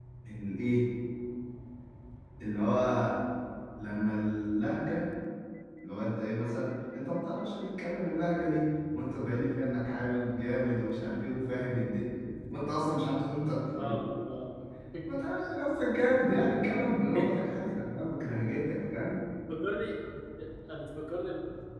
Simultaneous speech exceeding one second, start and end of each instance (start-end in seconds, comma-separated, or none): none